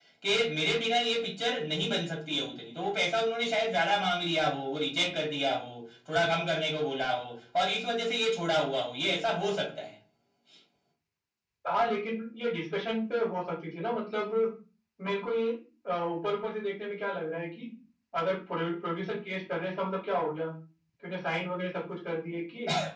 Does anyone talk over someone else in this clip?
No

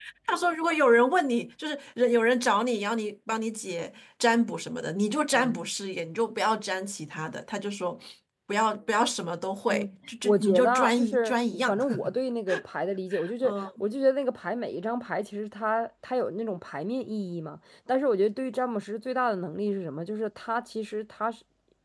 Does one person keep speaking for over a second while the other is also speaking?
Yes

